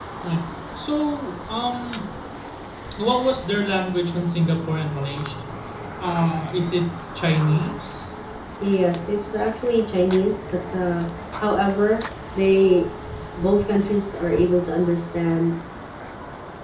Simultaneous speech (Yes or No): No